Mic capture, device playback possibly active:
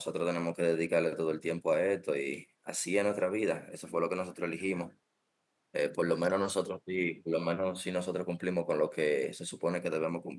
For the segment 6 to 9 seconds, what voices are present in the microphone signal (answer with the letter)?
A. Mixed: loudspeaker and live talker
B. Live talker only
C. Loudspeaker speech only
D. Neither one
B